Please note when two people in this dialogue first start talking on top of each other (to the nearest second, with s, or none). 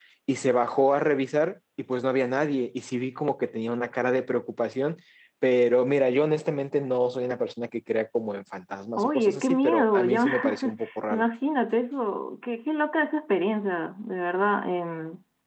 9 s